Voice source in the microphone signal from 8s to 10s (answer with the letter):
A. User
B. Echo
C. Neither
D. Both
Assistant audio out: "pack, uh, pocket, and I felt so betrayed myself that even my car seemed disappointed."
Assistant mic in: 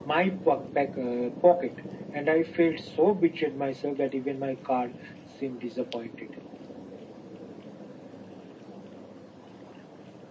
C